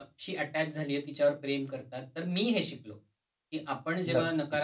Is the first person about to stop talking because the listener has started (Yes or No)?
No